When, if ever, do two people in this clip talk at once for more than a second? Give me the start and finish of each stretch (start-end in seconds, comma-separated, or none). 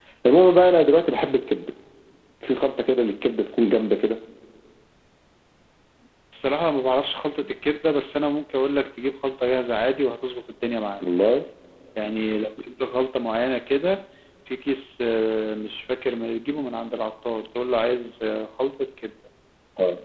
none